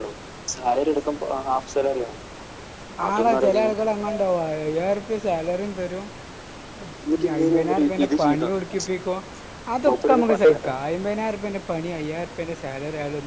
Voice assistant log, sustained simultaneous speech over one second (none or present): present